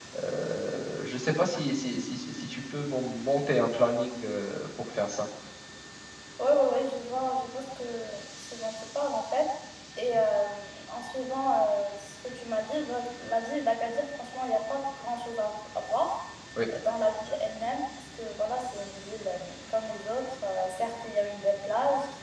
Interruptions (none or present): none